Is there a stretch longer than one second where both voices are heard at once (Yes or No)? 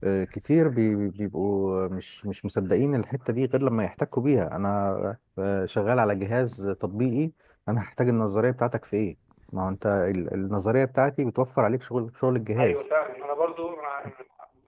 No